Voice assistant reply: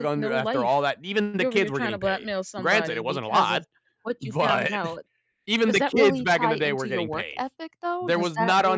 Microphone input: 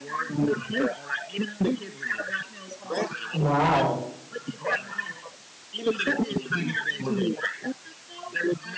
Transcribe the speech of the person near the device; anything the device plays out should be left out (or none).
Wow.